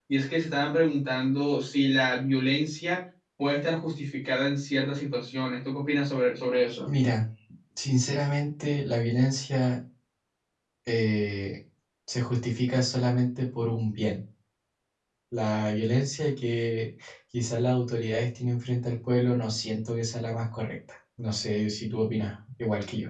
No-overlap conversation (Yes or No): Yes